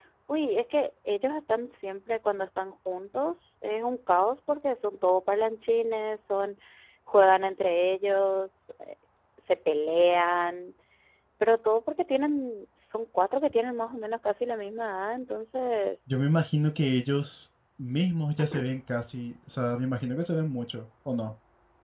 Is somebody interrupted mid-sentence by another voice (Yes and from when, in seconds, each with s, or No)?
No